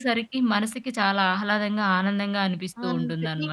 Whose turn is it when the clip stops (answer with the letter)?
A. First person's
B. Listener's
B